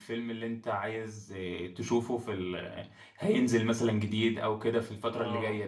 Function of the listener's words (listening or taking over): taking over